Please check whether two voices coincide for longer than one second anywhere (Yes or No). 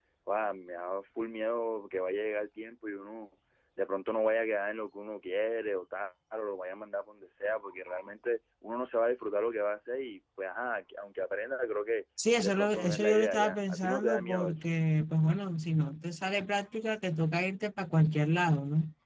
Yes